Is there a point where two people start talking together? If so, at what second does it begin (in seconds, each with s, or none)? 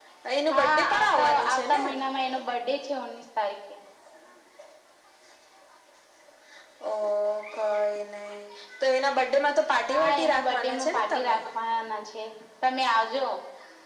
0.5 s